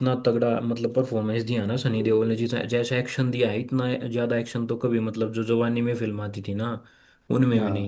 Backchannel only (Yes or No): Yes